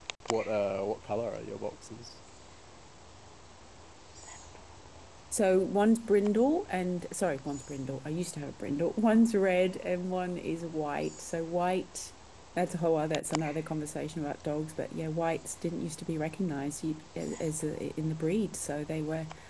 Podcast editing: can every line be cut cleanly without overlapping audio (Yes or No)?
Yes